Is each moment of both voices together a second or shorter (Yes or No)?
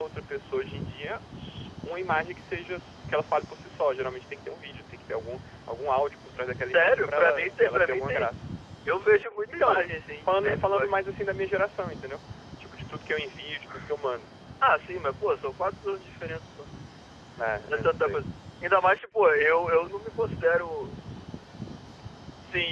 No